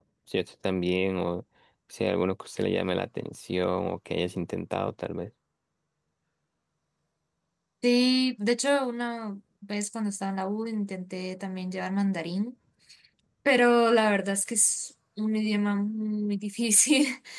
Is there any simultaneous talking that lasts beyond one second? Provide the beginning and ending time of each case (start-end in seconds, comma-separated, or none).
none